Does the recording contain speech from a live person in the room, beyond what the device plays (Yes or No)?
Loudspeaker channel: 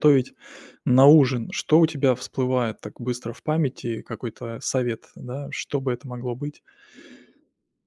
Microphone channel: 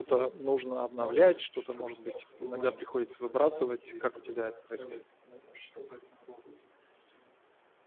Yes